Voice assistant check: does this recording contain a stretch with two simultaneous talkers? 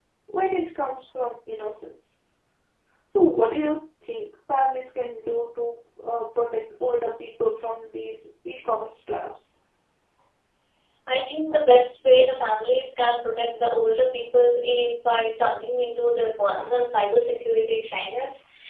No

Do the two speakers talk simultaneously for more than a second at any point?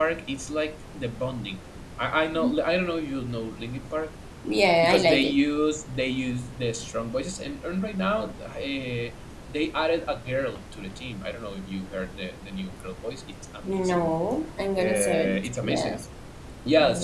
Yes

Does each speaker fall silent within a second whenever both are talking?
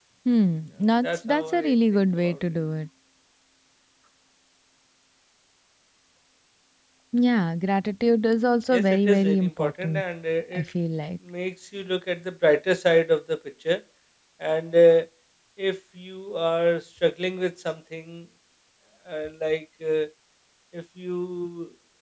No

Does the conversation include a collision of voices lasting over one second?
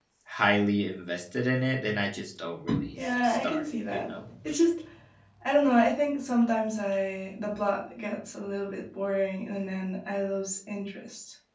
Yes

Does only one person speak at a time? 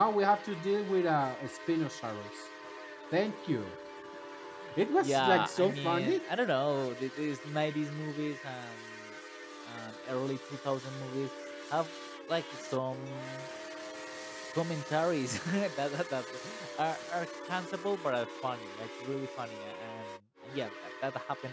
No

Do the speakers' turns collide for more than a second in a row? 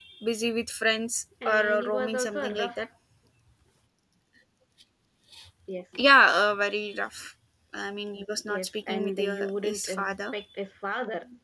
Yes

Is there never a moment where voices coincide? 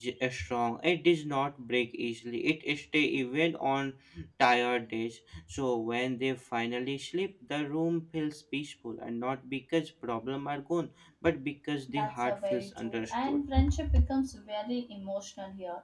No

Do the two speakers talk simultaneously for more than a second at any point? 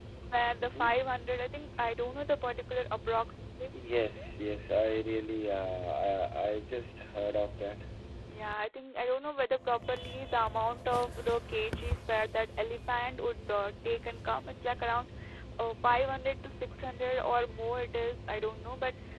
No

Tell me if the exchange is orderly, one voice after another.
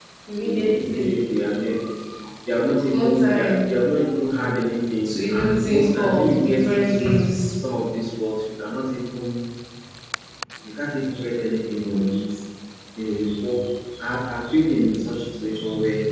No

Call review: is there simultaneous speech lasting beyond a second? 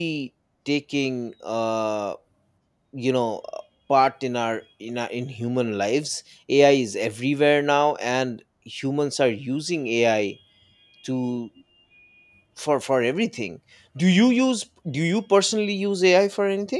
No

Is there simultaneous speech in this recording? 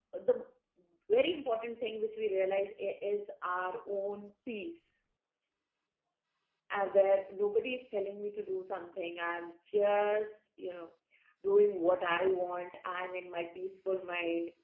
No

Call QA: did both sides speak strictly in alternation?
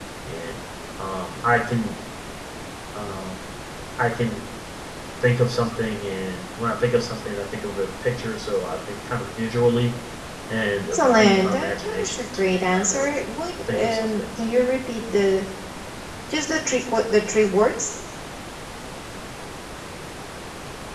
No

